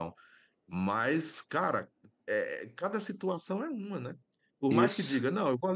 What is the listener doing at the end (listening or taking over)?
listening